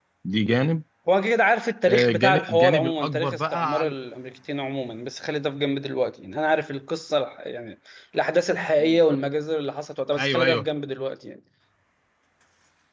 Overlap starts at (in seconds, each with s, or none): 1.9 s